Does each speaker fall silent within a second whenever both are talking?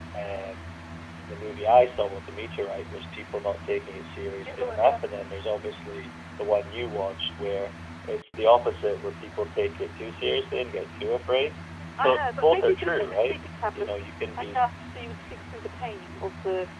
No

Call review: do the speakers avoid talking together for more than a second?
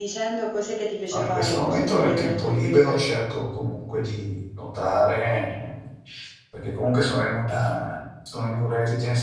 No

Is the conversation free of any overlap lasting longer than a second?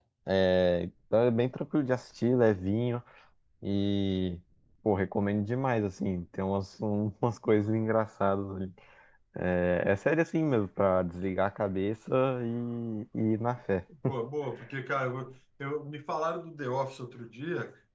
Yes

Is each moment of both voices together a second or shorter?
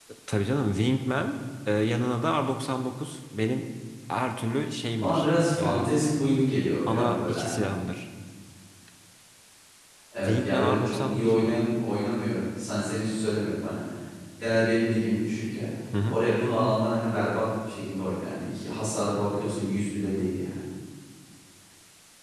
No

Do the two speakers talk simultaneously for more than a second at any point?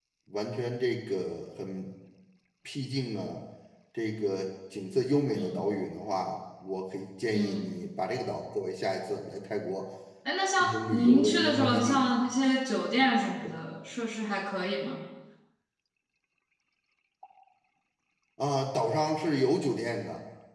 Yes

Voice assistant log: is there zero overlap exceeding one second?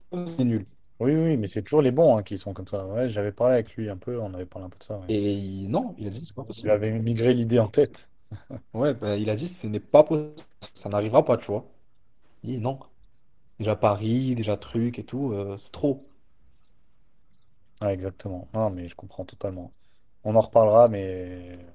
Yes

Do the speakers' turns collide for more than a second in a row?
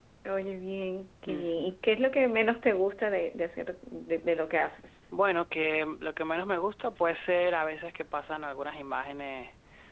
No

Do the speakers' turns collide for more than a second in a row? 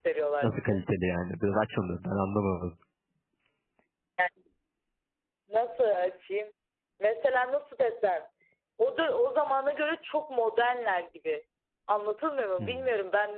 No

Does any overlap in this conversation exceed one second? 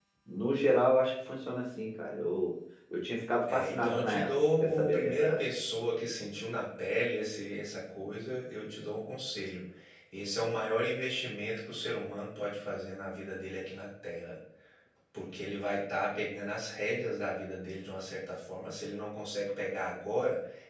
Yes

